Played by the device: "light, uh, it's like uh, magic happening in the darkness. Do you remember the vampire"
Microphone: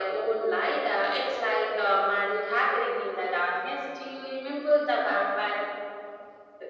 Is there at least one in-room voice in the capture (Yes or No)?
No